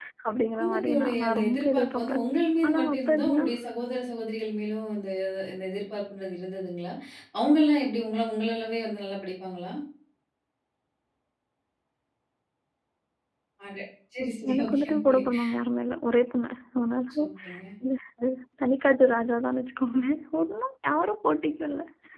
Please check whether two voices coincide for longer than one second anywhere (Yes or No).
Yes